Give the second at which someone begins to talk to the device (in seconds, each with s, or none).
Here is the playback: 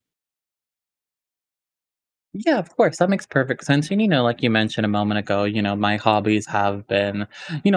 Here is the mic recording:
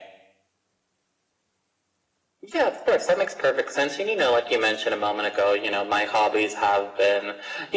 none